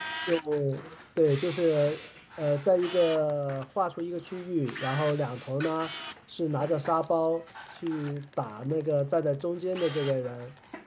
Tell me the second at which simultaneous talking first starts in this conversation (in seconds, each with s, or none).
none